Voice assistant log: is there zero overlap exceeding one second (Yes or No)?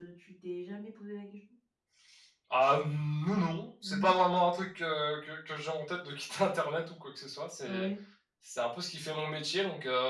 Yes